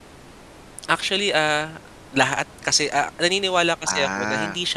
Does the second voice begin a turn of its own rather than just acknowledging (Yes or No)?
No